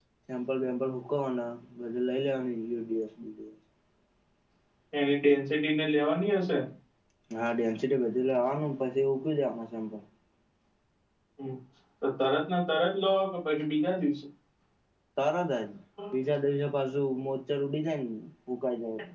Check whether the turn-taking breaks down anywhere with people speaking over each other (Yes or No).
No